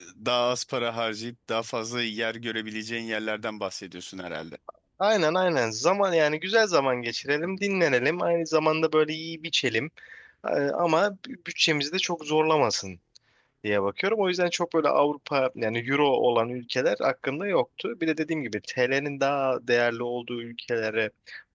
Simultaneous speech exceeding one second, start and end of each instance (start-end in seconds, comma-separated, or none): none